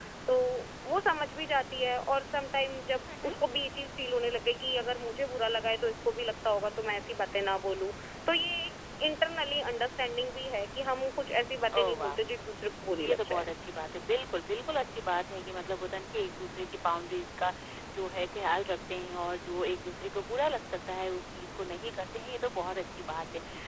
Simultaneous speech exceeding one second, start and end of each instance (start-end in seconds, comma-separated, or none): none